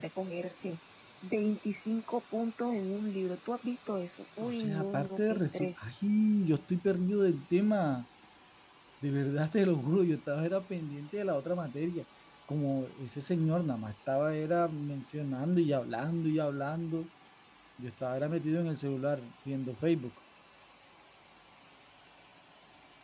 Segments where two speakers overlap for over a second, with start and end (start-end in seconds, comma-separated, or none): 4.4-5.8